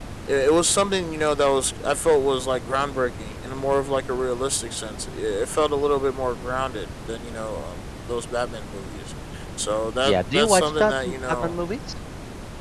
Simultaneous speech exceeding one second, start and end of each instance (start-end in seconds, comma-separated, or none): 10.1-11.5